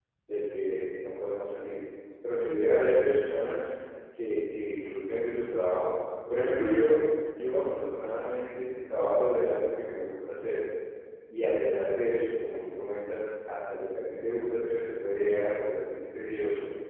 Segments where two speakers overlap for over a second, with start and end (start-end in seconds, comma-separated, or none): none